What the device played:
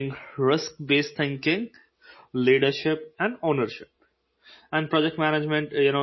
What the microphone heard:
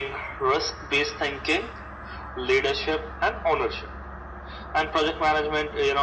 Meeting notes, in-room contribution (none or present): none